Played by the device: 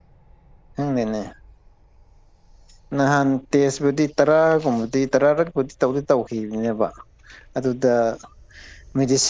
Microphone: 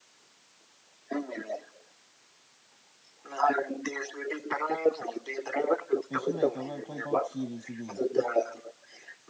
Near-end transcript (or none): ꯀꯩꯁꯨ ꯂꯩꯇꯕ ꯑꯩꯈꯣꯏꯐꯥꯎ ꯊꯤꯔꯤꯁꯤꯗꯤ